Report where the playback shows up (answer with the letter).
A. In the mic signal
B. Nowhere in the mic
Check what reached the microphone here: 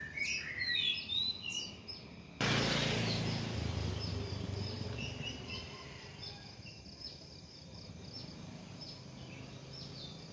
B